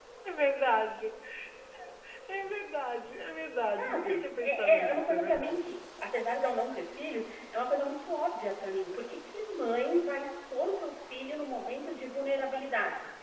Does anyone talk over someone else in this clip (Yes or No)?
Yes